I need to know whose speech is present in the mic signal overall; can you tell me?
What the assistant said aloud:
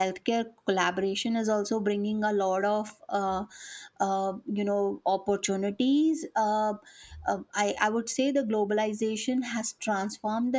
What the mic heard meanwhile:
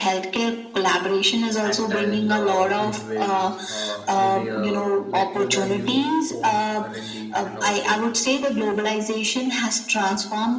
both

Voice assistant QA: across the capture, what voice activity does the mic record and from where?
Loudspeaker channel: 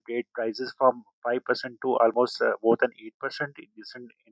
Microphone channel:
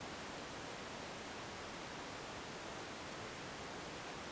neither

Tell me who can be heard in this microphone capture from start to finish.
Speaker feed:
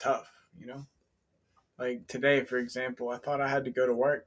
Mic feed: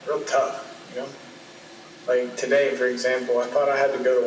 echo only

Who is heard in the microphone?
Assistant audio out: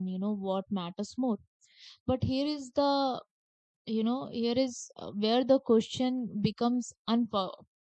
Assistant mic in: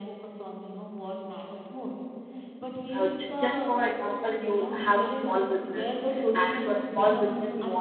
both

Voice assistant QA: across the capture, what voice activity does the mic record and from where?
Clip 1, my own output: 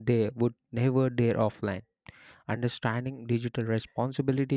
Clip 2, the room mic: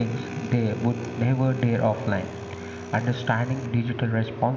echo only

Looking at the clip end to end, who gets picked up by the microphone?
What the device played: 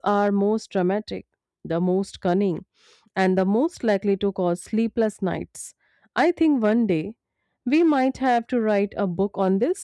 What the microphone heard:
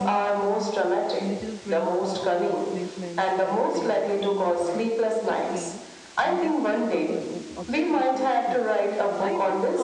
both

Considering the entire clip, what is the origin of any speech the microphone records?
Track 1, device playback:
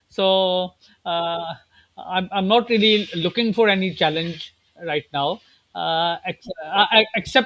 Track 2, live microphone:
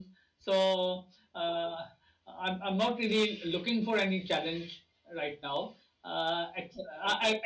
echo only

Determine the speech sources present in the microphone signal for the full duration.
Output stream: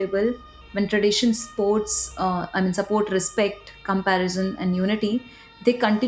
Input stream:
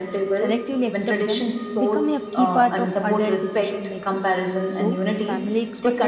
both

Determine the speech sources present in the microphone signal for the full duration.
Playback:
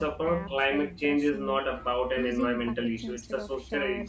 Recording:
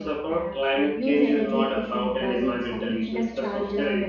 both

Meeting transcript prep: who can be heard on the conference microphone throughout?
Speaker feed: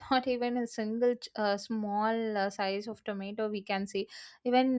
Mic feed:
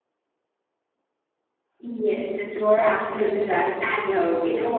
user only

